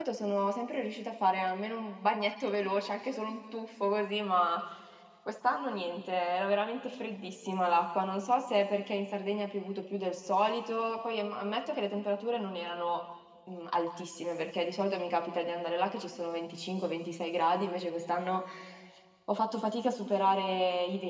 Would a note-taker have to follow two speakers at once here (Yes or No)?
No